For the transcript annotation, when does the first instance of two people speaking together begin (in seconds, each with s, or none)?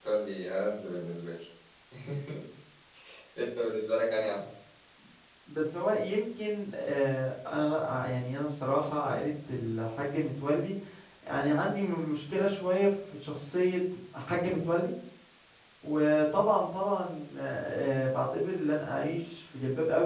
none